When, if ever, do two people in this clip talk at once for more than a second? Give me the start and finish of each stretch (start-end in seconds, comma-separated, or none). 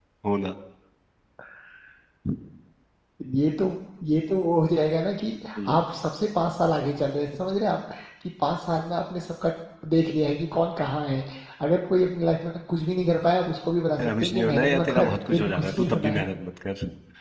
14.0-16.2